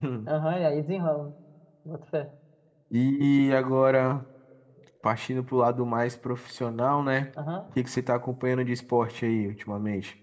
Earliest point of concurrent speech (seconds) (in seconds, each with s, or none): none